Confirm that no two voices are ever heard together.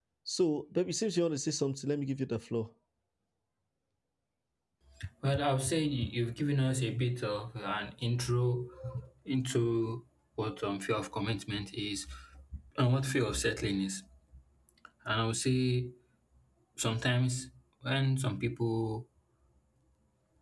Yes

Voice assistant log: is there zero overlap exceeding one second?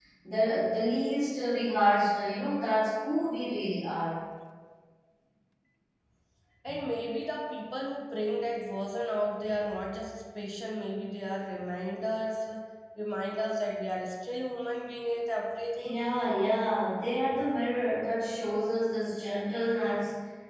Yes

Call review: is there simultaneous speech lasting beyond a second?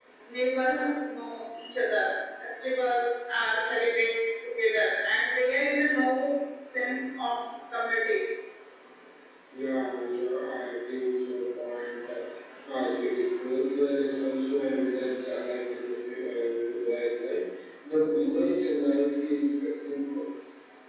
No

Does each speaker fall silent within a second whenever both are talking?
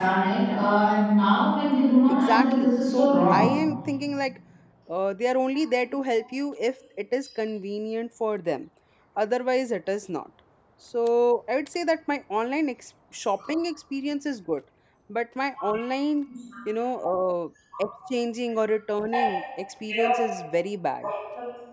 No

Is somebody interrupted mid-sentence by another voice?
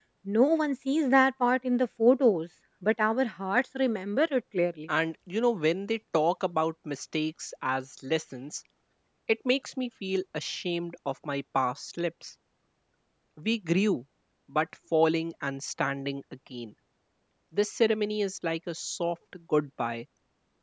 No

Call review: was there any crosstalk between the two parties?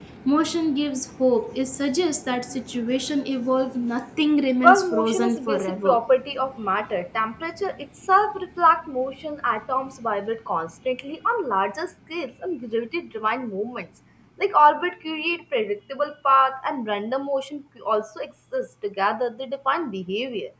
Yes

